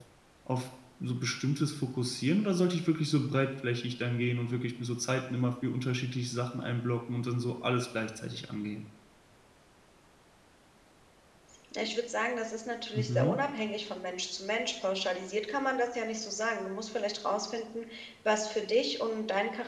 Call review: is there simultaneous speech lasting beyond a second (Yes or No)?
No